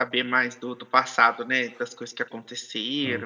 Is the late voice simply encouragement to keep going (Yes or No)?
Yes